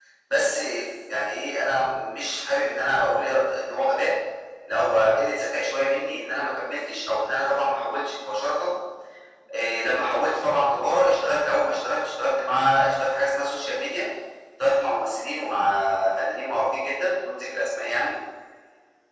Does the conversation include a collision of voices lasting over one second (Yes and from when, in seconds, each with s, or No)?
No